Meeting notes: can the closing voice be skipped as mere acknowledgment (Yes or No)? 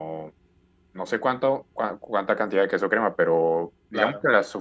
Yes